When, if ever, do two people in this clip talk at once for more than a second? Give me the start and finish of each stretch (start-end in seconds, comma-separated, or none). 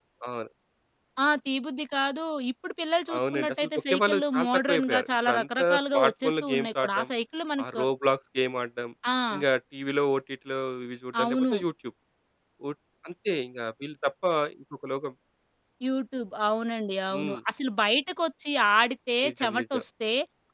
3.2-7.1